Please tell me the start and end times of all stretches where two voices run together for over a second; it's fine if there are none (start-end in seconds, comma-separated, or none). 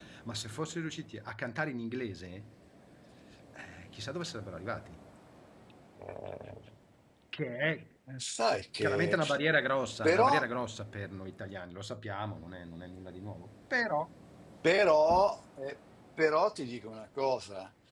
none